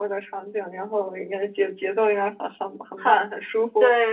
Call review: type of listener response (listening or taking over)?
taking over